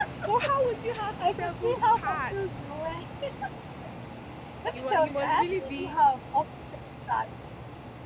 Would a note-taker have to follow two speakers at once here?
Yes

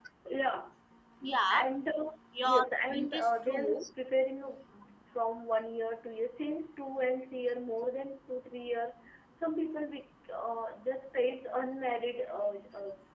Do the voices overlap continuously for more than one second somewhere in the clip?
Yes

